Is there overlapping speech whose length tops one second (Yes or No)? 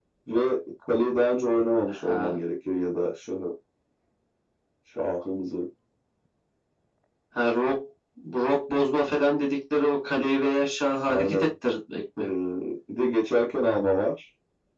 No